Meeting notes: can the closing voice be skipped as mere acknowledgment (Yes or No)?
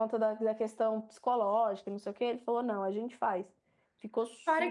No